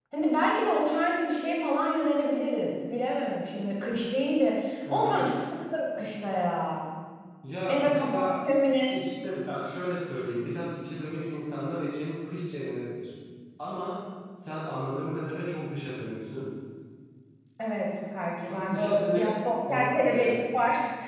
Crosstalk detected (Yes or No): Yes